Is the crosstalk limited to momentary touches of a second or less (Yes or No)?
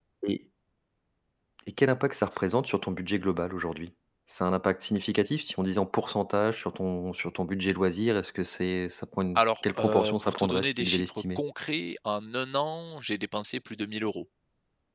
No